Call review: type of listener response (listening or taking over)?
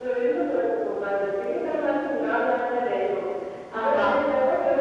listening